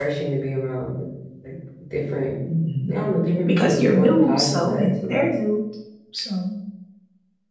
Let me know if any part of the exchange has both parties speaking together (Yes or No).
Yes